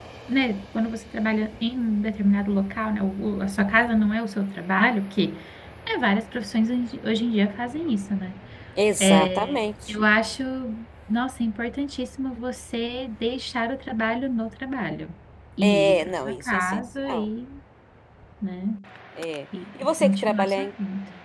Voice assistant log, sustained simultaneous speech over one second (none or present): present